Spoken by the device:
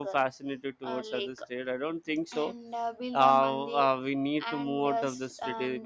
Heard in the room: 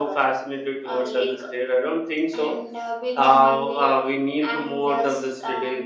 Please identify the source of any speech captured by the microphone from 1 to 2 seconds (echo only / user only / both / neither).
echo only